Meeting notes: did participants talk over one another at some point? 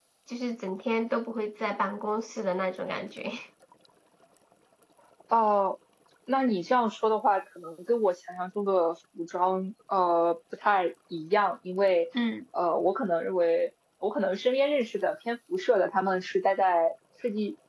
No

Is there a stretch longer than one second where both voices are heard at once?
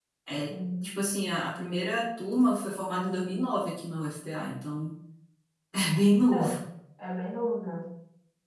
No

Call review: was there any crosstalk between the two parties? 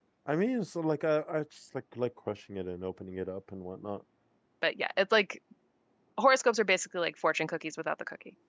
No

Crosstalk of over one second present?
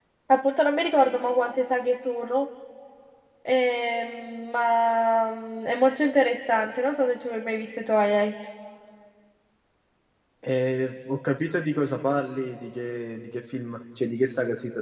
No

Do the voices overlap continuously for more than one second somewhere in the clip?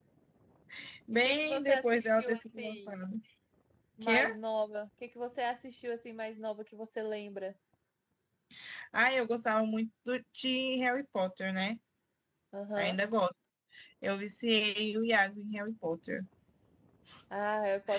Yes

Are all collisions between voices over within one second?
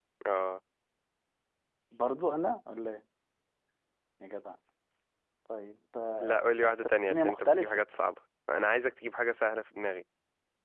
No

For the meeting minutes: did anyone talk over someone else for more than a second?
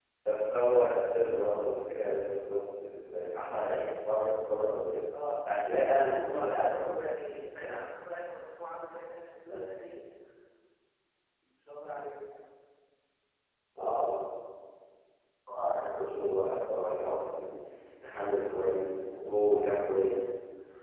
No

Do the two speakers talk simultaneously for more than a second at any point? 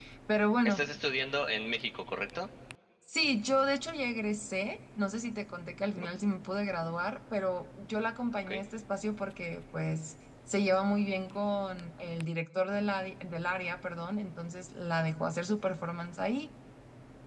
No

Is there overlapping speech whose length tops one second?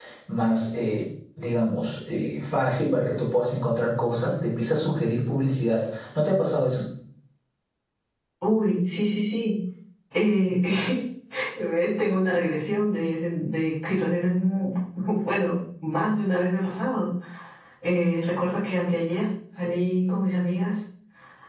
No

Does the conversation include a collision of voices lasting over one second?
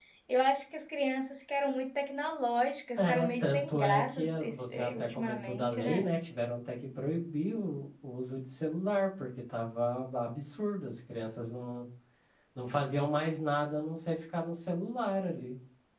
Yes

